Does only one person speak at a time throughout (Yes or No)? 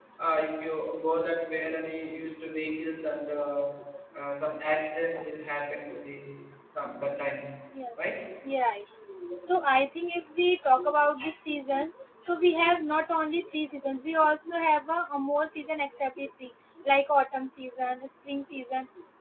Yes